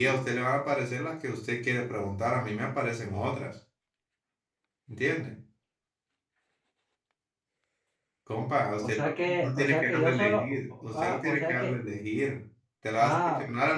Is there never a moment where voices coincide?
No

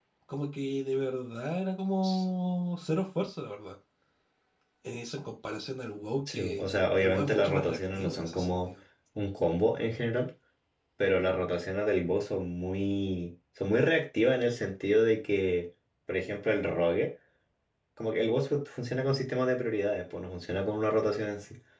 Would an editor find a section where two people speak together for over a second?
Yes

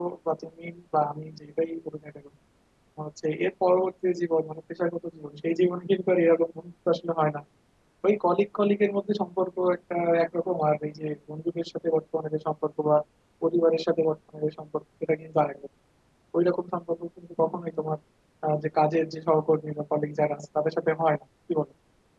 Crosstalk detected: No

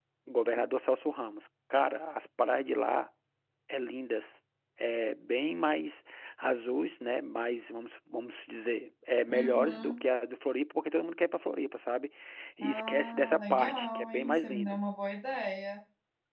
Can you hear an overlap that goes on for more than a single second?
Yes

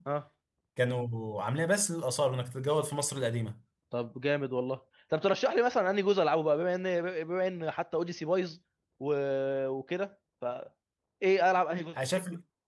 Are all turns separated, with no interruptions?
Yes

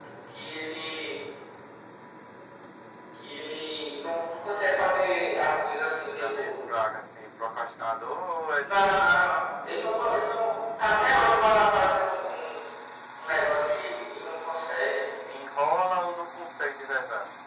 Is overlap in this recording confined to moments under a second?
Yes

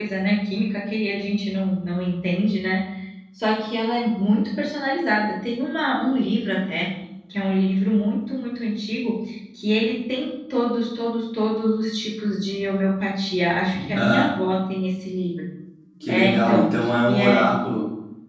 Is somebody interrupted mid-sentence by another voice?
Yes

